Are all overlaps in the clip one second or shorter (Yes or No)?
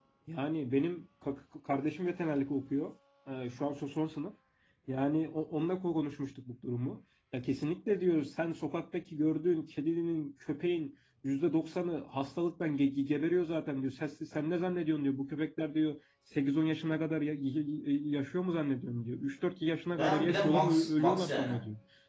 No